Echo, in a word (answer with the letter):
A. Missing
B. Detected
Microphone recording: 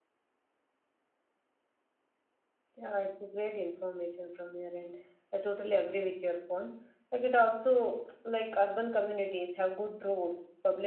A